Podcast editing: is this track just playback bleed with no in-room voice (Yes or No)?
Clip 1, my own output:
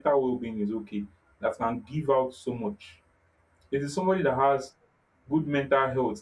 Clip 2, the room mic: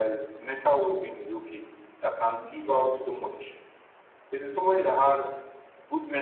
Yes